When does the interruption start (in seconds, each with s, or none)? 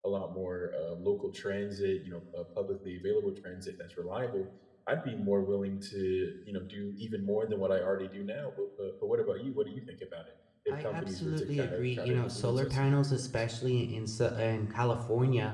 10.7 s